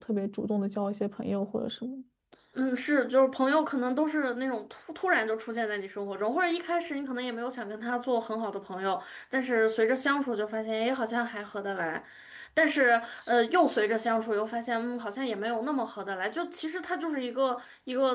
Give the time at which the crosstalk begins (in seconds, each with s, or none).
none